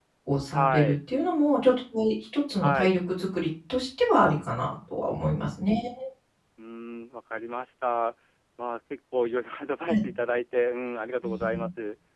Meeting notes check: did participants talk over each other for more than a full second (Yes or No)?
No